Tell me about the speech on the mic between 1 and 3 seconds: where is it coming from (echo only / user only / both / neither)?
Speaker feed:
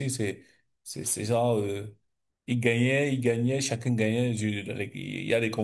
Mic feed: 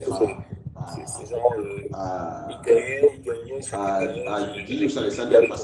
both